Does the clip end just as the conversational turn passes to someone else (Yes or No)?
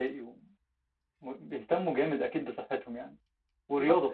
Yes